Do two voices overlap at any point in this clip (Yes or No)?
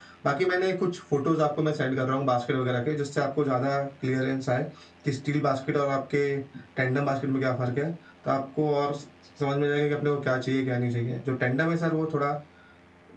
No